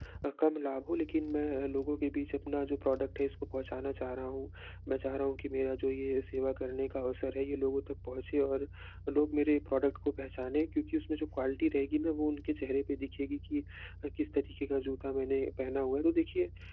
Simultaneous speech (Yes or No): No